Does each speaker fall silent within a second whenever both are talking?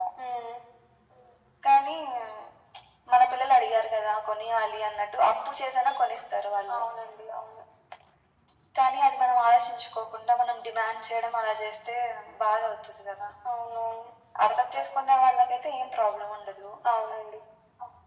Yes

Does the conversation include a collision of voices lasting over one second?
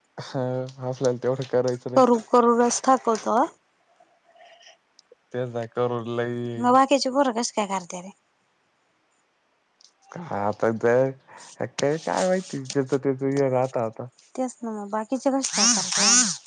No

